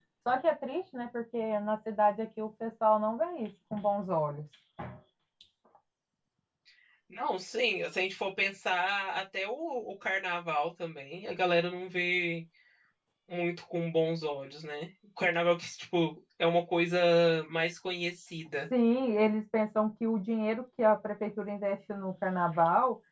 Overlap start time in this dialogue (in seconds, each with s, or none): none